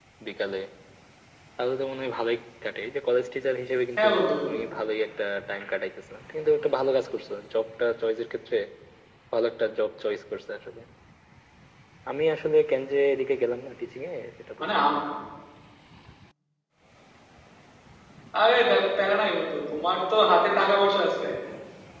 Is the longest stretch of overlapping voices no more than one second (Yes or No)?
Yes